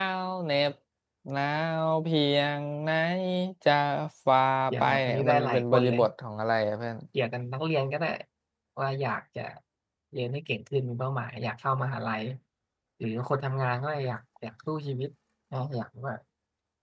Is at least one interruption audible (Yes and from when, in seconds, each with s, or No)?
Yes, from 4.8 s